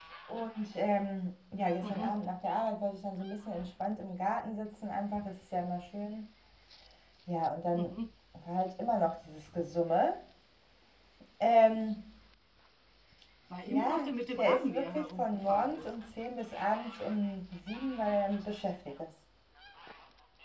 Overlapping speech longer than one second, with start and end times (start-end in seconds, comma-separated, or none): 13.7-15.8